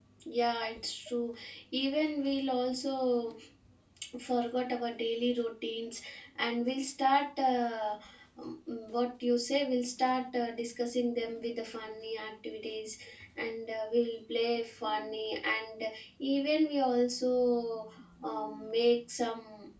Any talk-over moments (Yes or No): No